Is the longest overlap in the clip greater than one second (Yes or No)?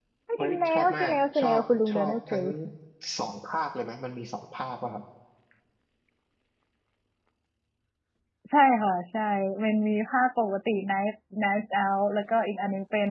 Yes